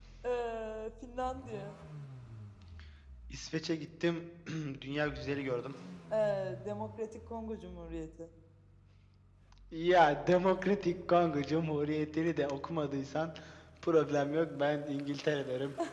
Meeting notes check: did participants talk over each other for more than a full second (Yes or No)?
No